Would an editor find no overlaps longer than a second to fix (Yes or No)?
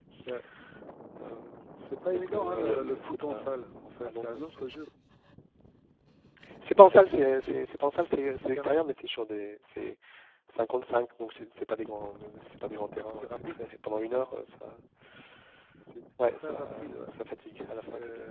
No